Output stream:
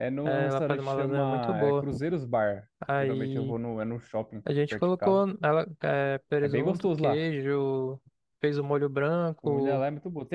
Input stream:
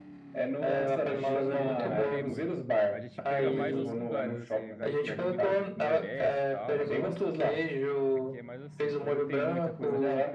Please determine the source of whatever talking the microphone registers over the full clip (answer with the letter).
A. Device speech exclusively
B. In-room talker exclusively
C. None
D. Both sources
D